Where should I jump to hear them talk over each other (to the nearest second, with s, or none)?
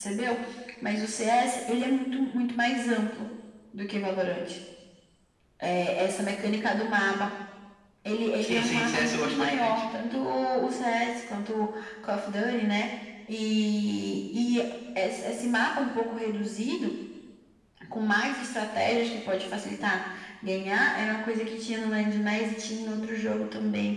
8 s